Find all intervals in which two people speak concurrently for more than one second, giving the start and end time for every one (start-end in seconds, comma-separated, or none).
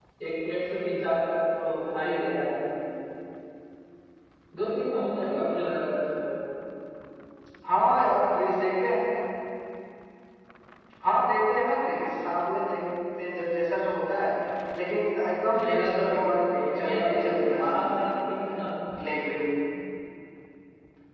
15.6-18.1